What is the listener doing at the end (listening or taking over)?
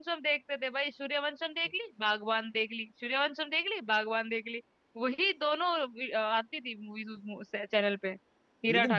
taking over